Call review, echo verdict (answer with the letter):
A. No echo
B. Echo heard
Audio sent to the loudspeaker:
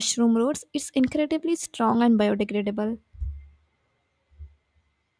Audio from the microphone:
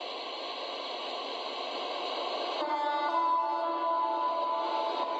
A